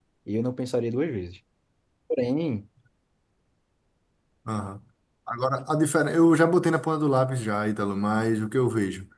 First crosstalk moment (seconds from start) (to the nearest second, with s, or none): none